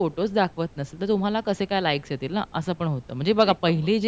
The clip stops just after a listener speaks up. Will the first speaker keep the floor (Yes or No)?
Yes